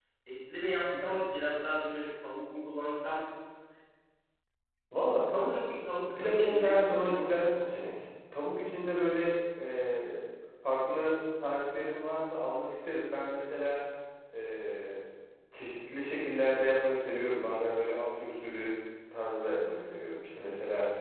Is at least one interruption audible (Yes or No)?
Yes